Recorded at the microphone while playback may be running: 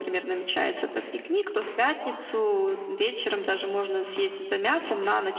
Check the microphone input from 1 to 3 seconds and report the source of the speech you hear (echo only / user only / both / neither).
echo only